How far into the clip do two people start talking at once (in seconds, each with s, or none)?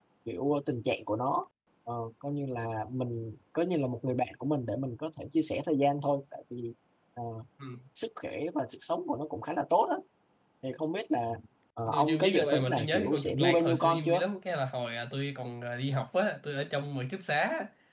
11.9 s